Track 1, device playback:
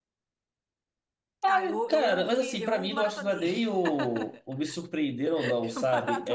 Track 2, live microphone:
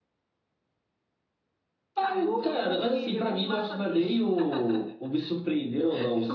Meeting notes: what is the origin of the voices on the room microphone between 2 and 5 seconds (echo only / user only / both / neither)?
echo only